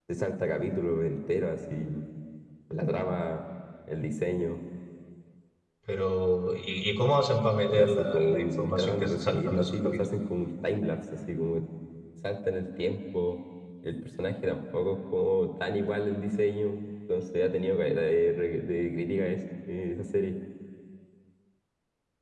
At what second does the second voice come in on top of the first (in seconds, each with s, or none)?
7.7 s